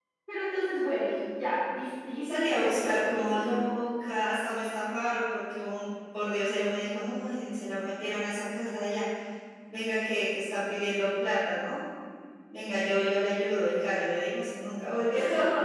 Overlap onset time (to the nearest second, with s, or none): 2 s